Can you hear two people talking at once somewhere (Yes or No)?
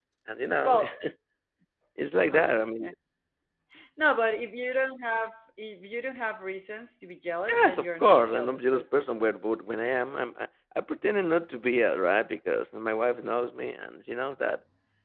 Yes